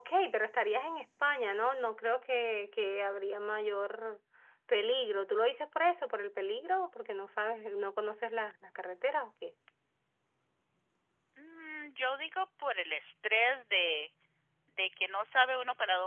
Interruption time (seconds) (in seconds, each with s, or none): none